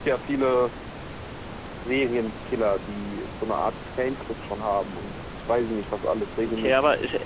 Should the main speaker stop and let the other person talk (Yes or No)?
Yes